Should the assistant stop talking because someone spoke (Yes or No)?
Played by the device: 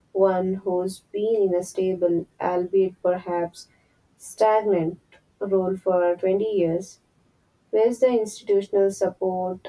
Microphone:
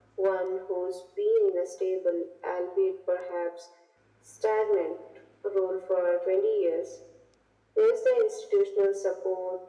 No